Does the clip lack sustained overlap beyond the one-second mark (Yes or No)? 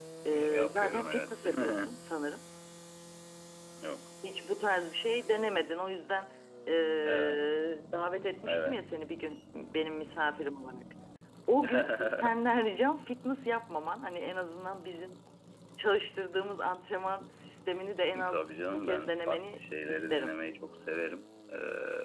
No